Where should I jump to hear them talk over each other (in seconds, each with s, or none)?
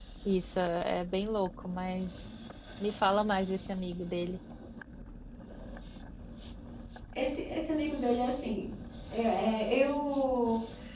none